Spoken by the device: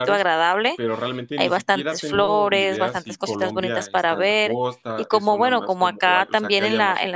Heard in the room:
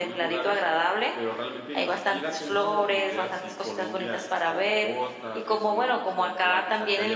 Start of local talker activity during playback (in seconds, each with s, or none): none